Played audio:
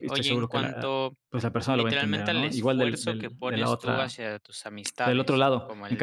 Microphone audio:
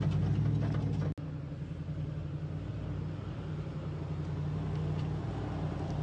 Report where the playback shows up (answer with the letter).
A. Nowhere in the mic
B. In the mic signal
A